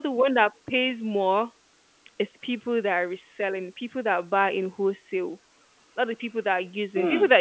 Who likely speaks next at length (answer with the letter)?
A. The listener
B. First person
B